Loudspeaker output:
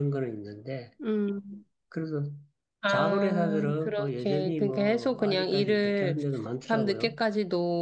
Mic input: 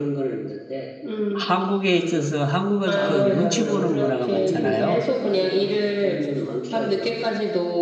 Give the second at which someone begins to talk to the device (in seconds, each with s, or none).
1.3 s